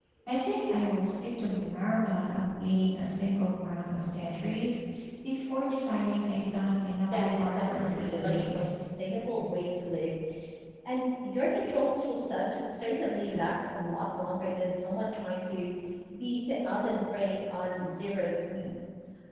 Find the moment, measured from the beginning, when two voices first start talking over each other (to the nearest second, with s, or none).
7 s